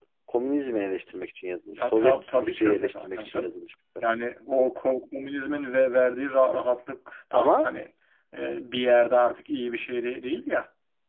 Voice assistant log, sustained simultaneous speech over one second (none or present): present